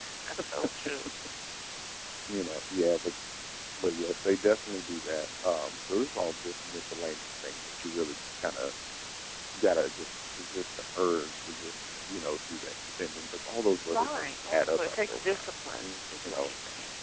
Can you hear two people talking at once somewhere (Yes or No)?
Yes